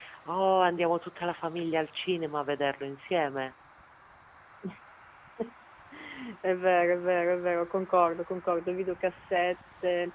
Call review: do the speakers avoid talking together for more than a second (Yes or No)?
Yes